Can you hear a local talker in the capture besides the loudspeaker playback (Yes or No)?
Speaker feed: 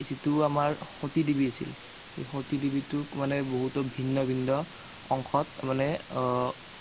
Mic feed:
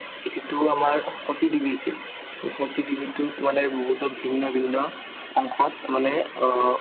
No